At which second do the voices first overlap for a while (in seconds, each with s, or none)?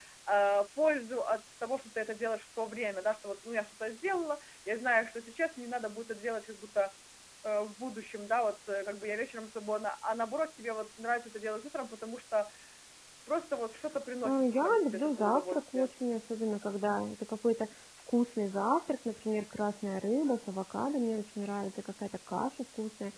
14.2 s